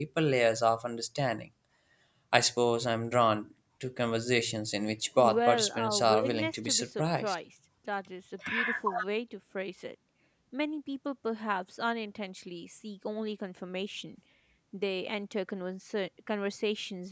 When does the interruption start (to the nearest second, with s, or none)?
5 s